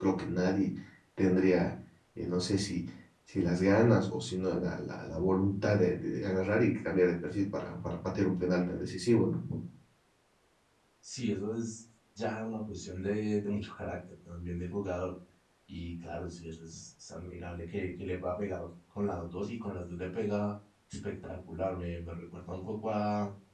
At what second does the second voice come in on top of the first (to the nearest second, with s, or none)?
none